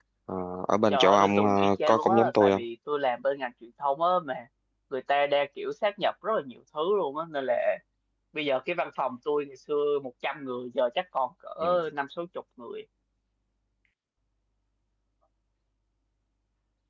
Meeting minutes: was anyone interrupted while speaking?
Yes, from 0.9 s

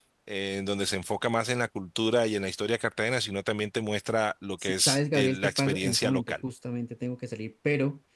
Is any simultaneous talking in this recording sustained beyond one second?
Yes, from 4.6 s

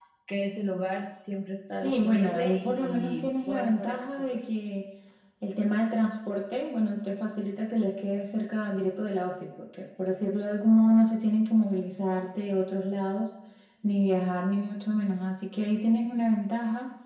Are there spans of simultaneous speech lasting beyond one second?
Yes, from 1.7 s

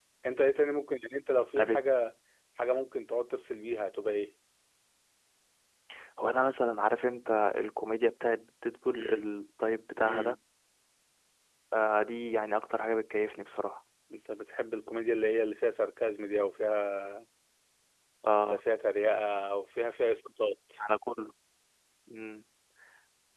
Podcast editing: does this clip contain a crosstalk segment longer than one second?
No

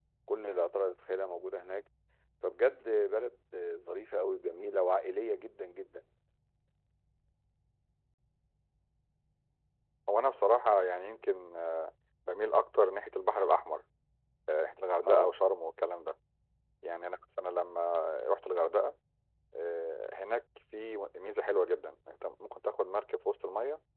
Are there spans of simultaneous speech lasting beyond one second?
No

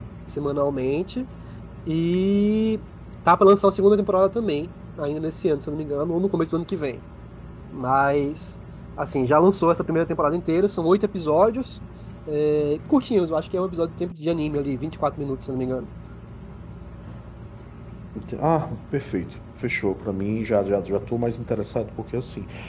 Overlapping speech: No

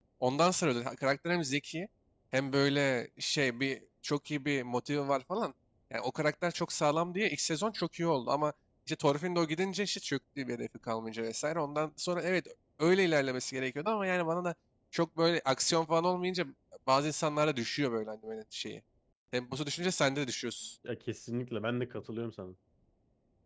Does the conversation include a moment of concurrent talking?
No

